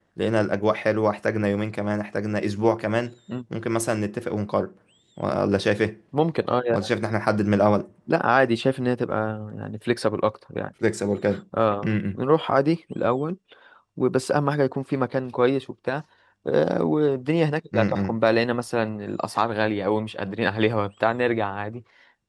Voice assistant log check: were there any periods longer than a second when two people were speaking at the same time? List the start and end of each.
none

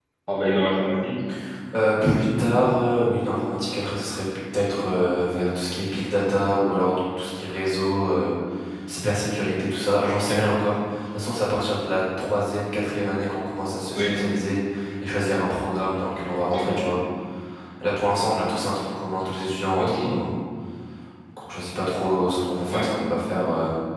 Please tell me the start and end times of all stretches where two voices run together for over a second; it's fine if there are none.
none

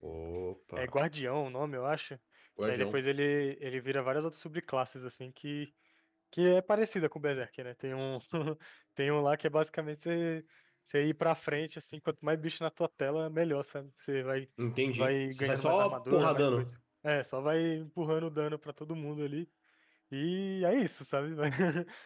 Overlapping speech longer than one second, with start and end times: 14.9-16.6

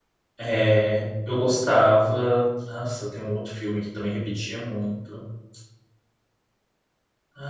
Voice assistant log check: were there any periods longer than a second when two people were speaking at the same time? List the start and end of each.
none

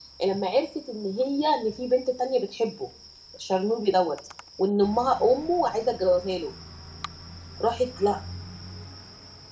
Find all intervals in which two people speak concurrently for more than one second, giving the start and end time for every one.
none

